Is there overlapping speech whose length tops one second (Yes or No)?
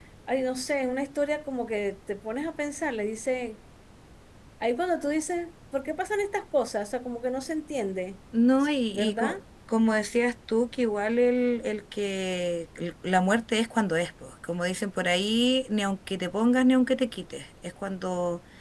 No